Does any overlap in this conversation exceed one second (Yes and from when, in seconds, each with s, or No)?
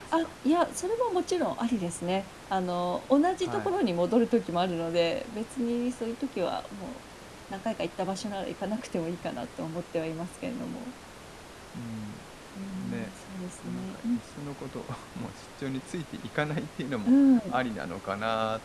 No